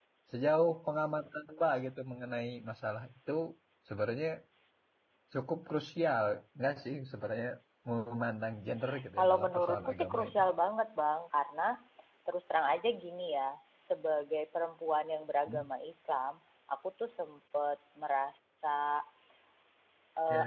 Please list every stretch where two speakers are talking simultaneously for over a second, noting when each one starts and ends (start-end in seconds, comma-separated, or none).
9.2-10.4